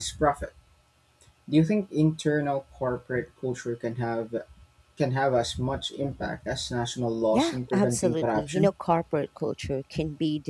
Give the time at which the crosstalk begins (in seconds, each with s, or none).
7.3 s